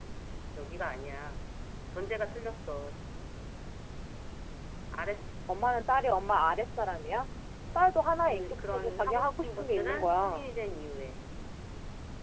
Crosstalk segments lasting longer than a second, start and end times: 8.3-10.5

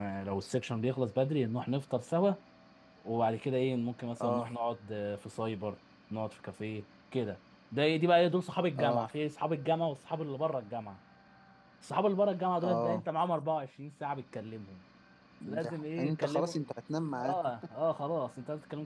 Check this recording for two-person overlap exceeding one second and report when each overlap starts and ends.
15.5-16.7

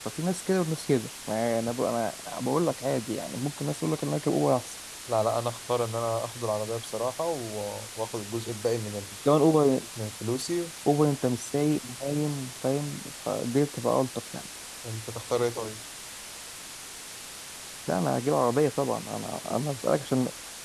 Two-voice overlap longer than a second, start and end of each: none

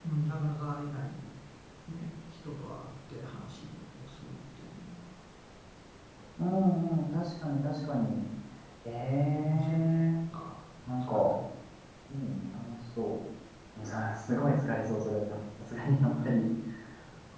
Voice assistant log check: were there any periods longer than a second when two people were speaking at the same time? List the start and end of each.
none

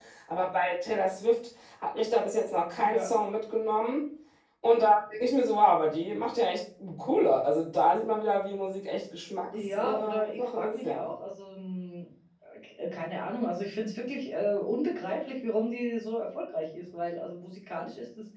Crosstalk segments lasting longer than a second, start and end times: 9.8-11.0

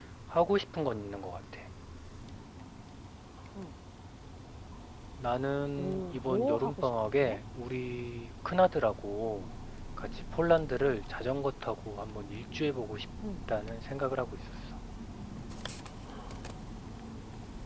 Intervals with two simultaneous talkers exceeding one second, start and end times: 5.8-7.4

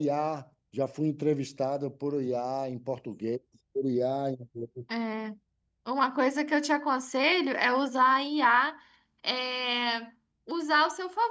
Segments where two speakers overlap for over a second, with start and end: none

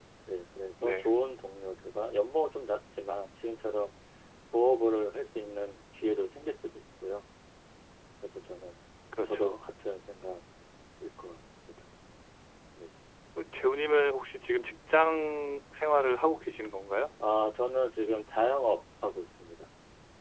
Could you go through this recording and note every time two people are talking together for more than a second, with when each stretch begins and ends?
none

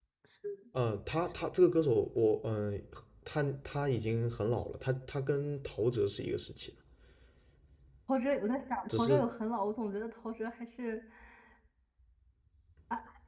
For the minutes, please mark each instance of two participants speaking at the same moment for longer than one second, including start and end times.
none

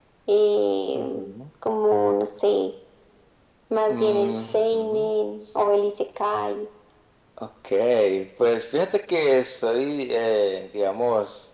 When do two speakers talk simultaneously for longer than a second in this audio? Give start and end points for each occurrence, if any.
3.9-5.1

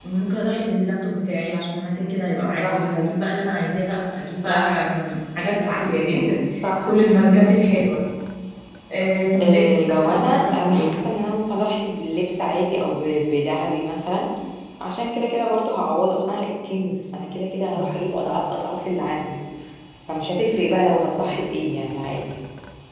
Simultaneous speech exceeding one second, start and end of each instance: 9.4-10.9

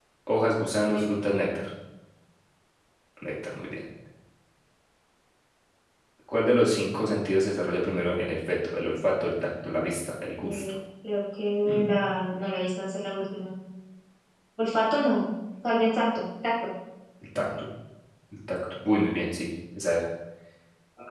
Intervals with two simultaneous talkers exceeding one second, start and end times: none

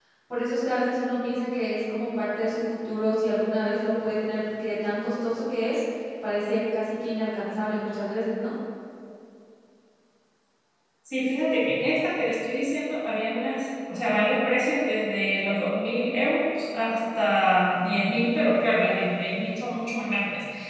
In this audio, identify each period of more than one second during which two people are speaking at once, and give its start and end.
none

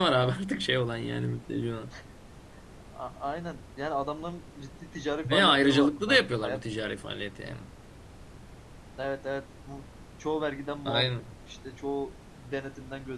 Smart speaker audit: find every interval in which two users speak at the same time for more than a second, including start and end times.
5.2-6.6

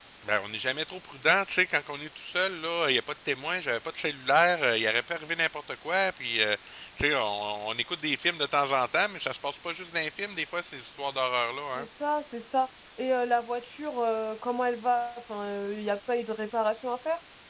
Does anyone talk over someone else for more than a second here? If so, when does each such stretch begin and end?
none

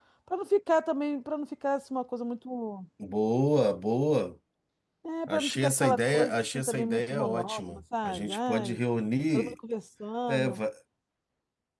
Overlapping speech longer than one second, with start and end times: 5.3-8.8

